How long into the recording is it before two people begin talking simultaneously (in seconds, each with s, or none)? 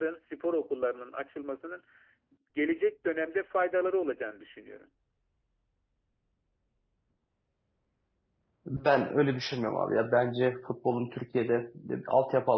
none